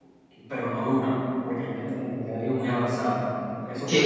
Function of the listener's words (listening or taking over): taking over